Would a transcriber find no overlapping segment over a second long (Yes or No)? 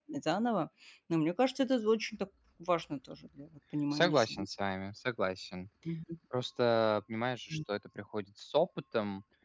Yes